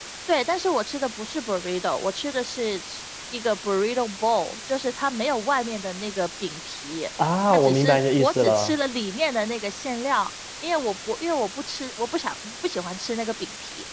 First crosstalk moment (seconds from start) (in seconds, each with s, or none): 7.5 s